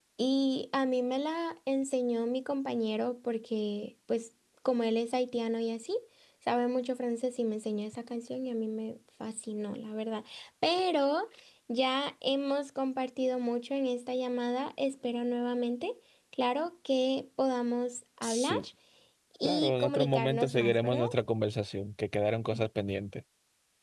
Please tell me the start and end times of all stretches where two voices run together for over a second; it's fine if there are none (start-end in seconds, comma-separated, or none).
19.4-21.1